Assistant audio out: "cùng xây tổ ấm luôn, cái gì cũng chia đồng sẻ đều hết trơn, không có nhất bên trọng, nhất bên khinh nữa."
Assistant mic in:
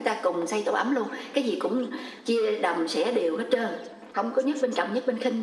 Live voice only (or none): none